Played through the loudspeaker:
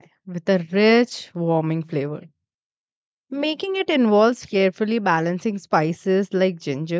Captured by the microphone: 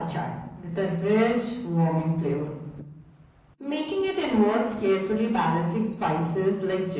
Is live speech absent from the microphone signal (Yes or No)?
Yes